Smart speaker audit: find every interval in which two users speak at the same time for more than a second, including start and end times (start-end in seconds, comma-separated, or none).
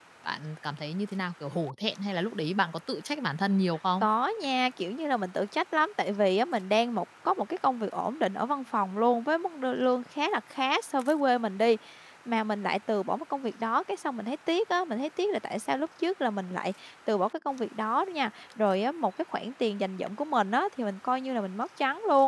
none